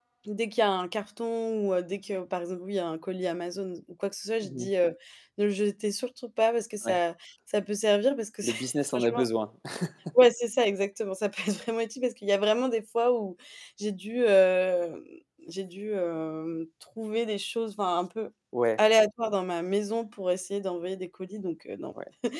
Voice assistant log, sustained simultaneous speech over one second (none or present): none